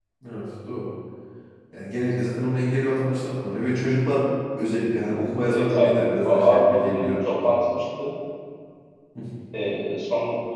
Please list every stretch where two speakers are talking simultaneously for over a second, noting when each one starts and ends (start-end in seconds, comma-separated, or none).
5.4-7.2